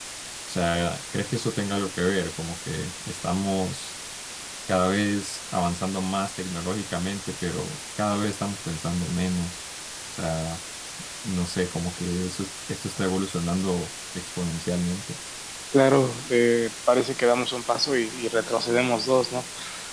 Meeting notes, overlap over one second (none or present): none